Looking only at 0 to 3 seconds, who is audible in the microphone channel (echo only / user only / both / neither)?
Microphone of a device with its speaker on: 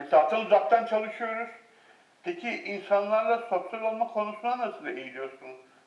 echo only